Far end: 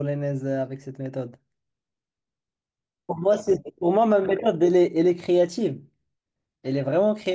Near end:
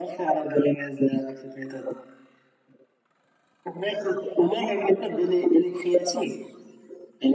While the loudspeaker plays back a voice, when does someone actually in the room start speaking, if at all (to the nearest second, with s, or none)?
none